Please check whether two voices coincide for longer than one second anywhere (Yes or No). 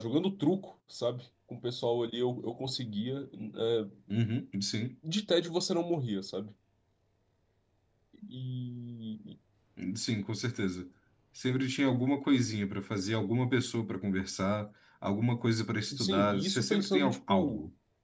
Yes